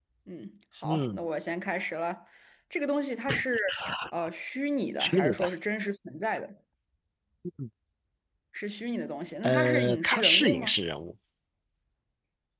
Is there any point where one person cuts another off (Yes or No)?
Yes